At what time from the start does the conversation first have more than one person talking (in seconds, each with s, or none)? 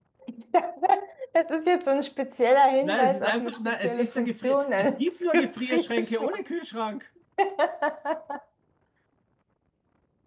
2.8 s